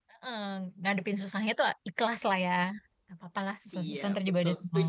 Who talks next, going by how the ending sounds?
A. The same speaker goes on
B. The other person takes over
B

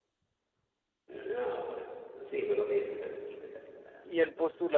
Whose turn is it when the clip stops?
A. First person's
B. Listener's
B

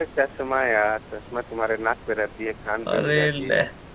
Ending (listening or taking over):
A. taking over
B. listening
B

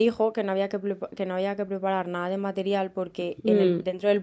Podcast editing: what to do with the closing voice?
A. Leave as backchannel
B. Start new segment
A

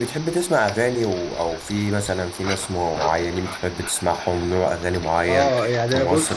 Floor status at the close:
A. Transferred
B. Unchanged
A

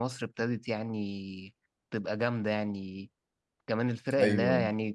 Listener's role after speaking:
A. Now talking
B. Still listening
B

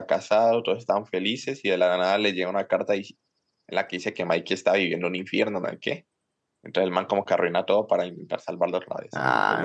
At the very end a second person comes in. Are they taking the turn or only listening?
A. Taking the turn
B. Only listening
A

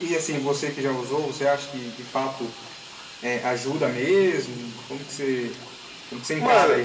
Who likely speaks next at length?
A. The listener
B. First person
A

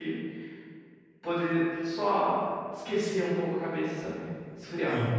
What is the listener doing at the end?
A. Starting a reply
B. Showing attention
A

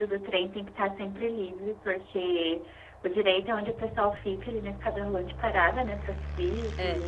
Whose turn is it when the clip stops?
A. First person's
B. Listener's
A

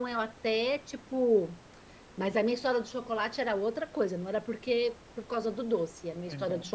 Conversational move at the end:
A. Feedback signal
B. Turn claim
A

